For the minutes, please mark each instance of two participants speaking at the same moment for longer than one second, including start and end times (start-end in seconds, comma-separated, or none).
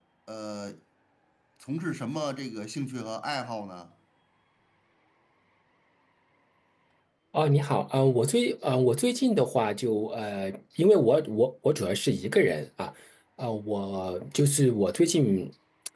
none